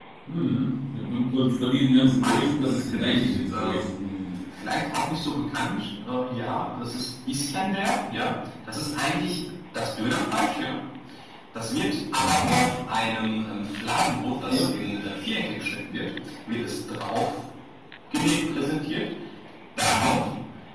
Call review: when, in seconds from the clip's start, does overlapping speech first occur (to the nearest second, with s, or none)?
2 s